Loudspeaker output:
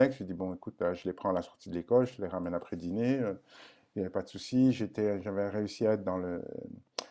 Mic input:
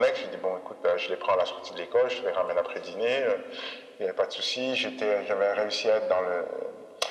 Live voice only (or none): none